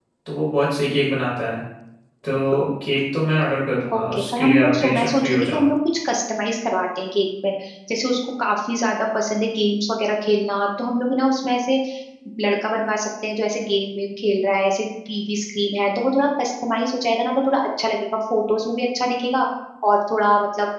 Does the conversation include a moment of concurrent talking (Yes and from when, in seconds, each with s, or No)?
Yes, from 3.9 s